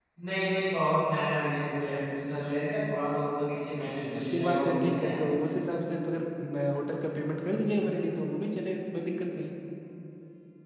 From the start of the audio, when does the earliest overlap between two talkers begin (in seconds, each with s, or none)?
3.8 s